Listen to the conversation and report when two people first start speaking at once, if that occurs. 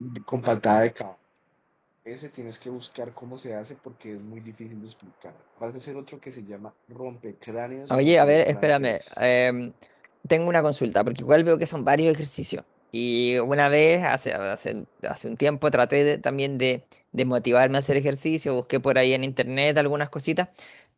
7.9 s

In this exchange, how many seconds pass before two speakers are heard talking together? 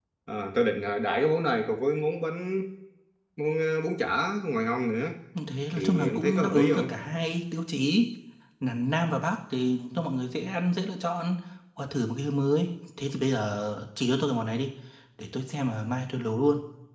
5.8 s

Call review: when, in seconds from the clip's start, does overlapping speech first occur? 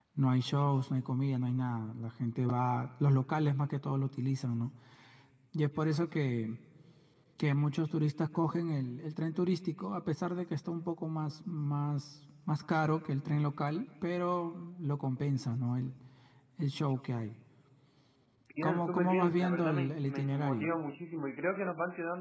18.6 s

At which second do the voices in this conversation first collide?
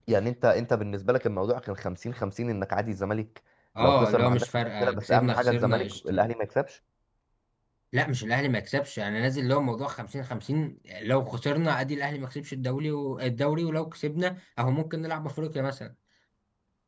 3.8 s

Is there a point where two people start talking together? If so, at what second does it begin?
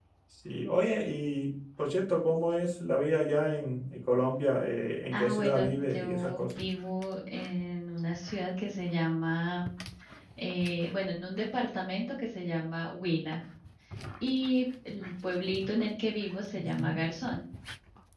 5.1 s

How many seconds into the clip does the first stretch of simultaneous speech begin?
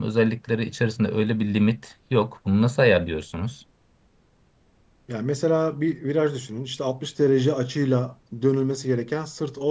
none

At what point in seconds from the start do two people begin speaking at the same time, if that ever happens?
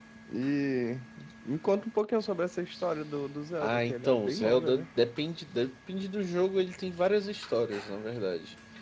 3.5 s

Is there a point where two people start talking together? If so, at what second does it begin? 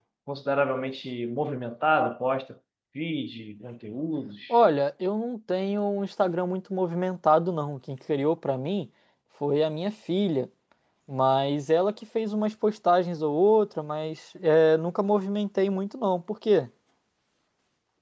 none

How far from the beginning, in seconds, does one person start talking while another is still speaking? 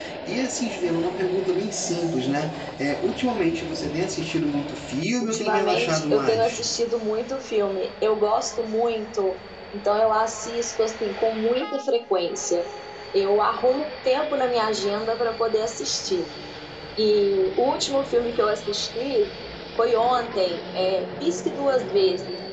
5.2 s

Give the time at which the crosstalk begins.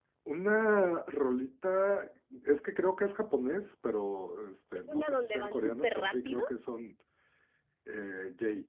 4.8 s

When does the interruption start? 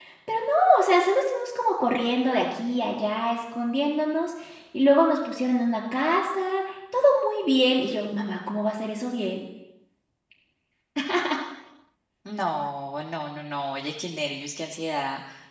none

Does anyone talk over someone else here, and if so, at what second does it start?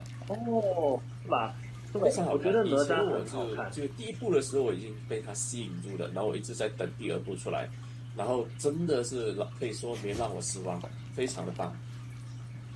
2.0 s

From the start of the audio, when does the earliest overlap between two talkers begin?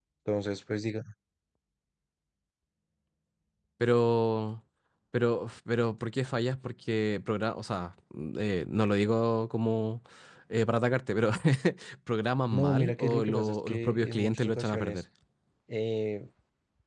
12.5 s

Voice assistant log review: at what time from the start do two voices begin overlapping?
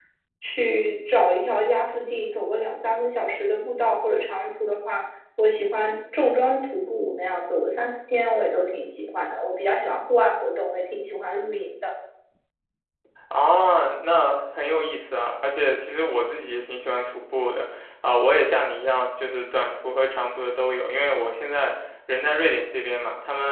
none

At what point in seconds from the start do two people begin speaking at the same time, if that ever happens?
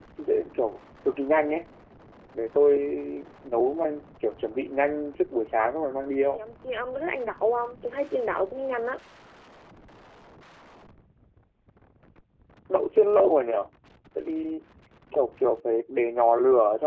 none

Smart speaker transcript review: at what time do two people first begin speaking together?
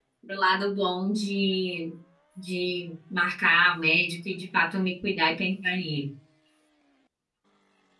none

